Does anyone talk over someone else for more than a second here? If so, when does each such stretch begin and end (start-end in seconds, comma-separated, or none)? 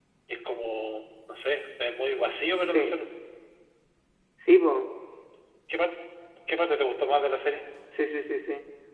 none